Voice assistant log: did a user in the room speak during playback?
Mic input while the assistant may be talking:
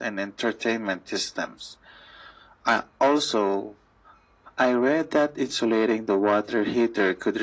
No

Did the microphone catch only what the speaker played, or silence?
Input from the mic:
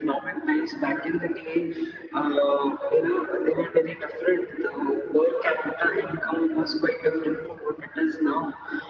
Yes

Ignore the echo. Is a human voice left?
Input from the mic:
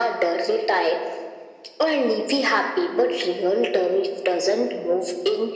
No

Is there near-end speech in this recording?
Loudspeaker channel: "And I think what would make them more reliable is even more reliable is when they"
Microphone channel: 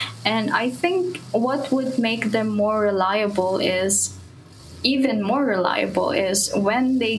No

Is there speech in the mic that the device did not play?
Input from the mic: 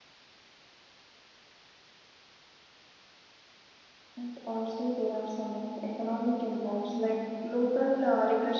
Yes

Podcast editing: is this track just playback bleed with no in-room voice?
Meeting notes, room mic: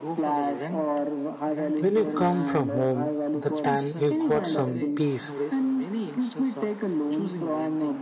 No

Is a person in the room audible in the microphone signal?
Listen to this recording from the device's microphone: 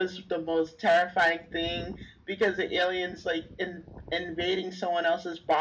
No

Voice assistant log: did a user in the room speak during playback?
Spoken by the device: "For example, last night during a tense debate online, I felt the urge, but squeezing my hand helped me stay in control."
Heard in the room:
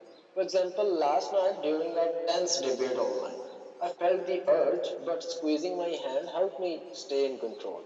No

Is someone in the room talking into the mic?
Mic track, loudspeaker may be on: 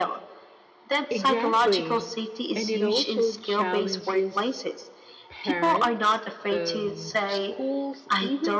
Yes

